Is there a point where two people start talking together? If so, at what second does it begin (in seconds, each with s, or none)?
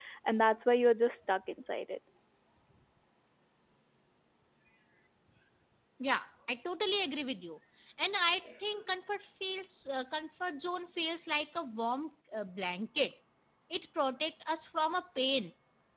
none